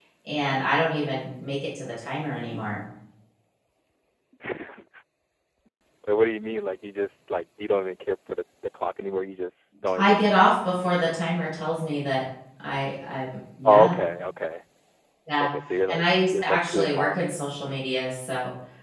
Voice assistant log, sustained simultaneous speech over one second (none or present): present